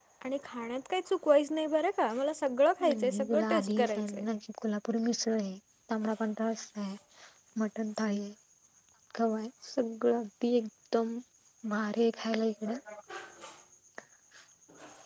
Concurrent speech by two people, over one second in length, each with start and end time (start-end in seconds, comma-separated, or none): 2.9-4.2